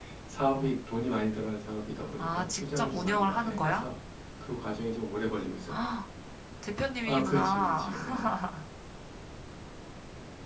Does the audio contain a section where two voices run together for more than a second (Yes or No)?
Yes